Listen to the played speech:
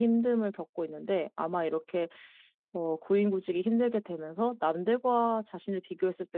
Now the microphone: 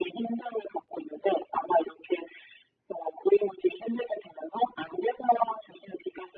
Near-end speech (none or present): none